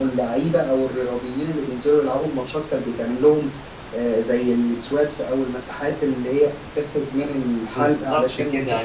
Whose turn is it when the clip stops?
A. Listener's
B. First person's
A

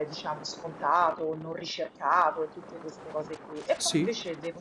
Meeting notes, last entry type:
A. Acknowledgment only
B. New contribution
A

